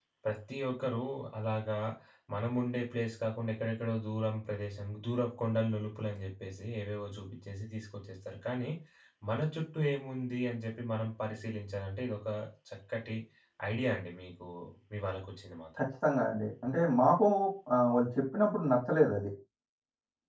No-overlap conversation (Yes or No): Yes